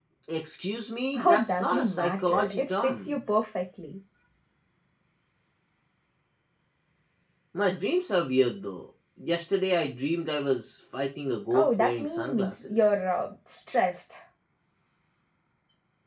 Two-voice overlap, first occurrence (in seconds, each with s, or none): 1.2 s